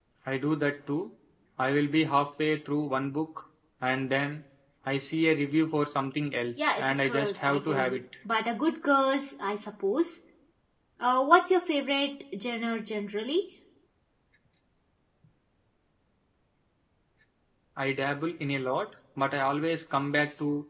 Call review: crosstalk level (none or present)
present